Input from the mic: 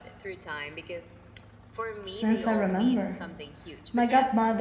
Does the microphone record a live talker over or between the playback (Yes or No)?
Yes